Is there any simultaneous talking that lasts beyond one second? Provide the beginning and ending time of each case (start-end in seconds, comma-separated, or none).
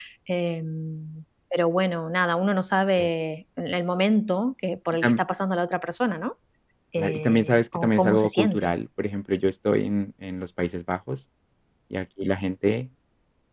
7.0-8.7